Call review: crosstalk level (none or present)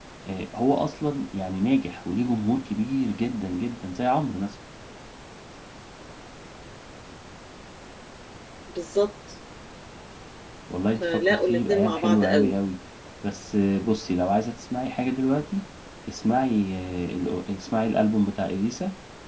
present